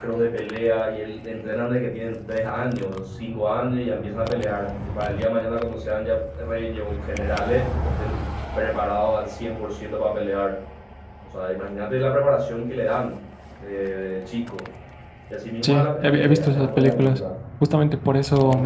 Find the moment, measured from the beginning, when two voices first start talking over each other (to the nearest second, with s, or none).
16 s